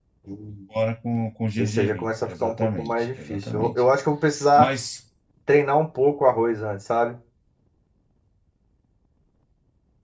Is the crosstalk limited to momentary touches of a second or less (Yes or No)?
No